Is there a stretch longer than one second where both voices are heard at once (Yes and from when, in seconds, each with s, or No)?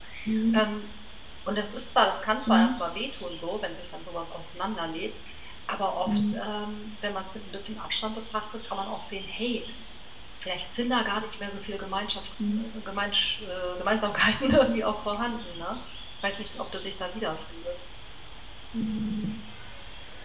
No